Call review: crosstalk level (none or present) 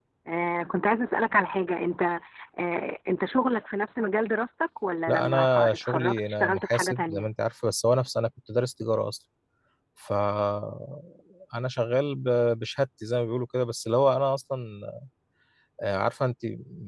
present